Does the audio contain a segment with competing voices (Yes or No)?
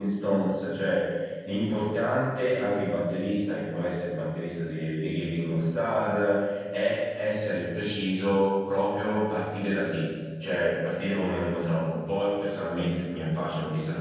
No